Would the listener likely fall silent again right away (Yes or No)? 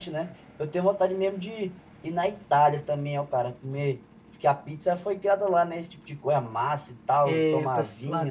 No